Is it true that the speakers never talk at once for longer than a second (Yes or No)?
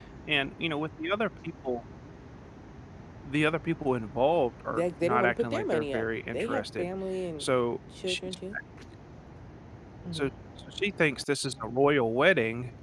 No